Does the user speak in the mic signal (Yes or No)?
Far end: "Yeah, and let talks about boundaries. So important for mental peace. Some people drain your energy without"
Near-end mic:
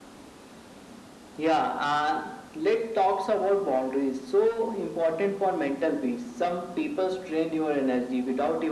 No